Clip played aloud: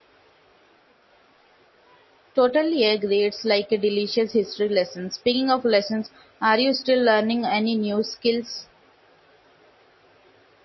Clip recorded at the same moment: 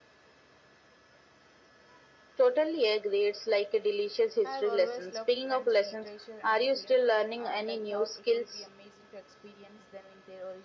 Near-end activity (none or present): present